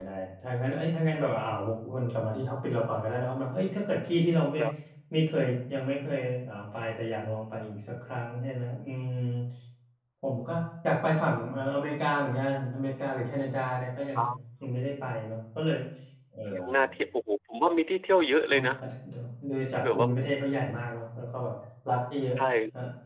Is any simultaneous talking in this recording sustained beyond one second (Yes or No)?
No